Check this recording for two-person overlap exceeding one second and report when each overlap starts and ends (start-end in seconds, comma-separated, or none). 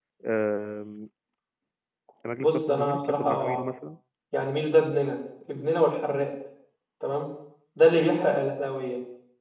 2.4-3.6